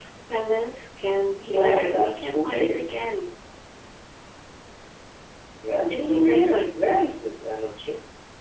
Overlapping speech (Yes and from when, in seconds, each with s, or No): Yes, from 1.5 s